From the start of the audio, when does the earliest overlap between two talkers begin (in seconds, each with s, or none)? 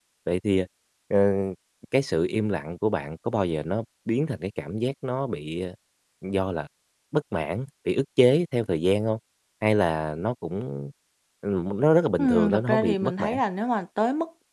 12.2 s